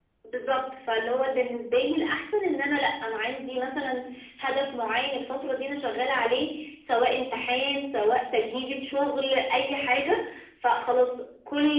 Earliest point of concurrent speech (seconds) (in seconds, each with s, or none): none